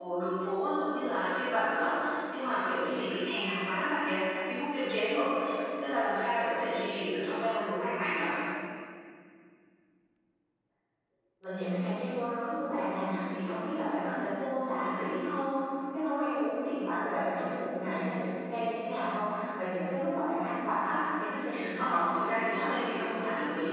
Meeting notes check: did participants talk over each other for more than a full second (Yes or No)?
Yes